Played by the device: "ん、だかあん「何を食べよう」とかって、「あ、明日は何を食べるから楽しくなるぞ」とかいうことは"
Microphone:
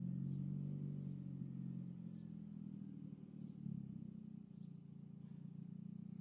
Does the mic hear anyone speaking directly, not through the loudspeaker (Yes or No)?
No